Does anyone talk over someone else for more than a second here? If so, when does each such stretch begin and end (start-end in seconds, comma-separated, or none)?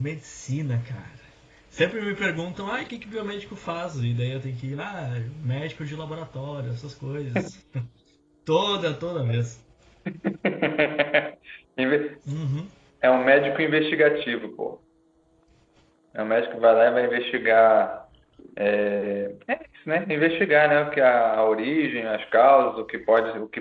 none